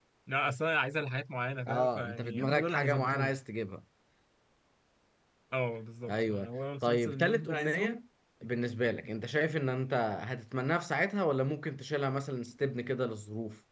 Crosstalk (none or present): present